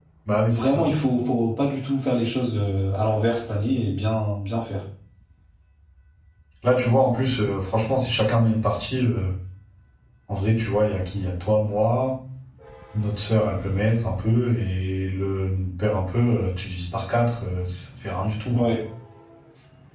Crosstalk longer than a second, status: none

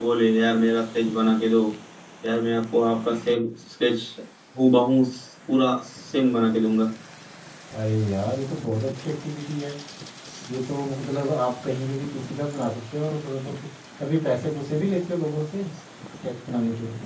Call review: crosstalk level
none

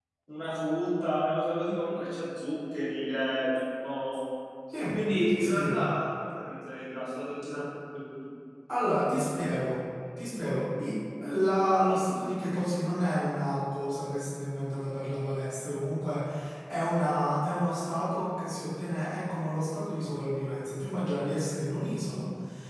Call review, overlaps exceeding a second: none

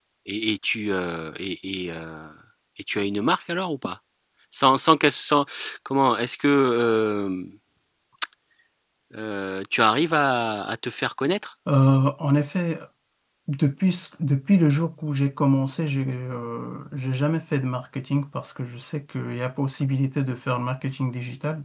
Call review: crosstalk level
none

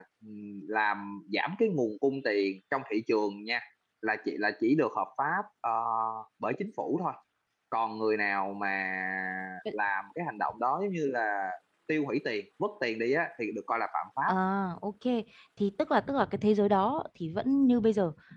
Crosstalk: none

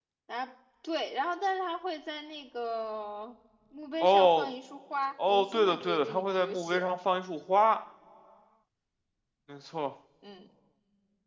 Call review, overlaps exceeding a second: present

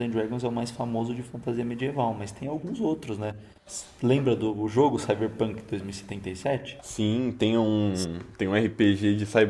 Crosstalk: none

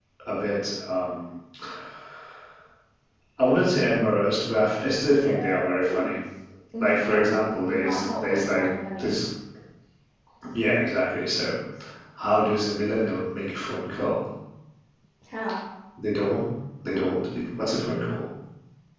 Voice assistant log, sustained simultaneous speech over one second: present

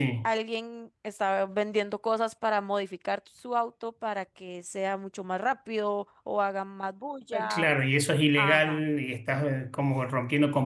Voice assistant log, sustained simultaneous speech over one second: none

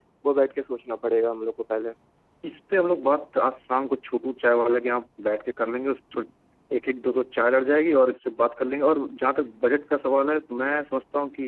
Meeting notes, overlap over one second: none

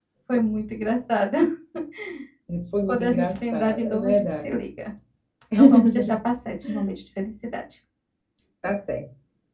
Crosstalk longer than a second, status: present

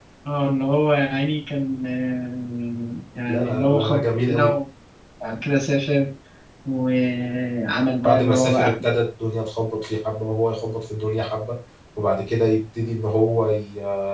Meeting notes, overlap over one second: present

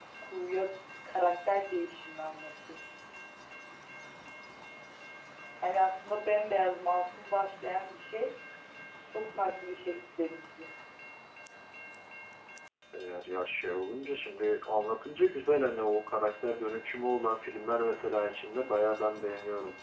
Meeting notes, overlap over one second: none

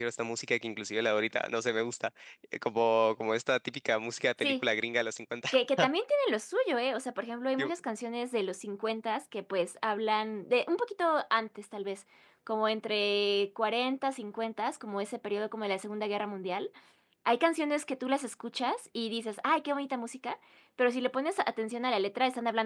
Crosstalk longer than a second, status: none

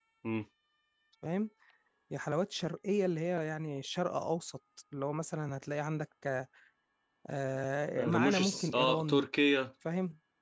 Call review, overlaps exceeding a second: present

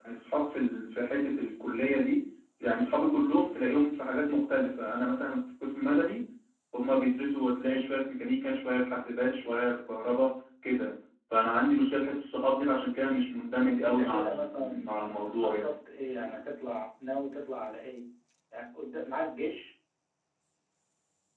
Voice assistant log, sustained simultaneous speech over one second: present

